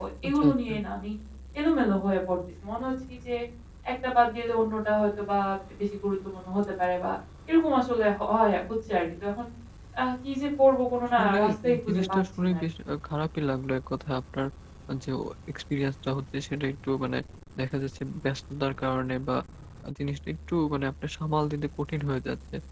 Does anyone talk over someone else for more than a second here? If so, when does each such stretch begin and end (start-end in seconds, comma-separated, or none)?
11.2-12.6